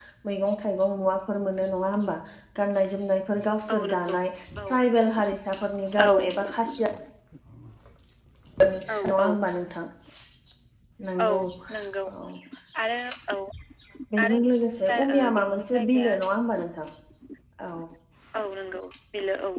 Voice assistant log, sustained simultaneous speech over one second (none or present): present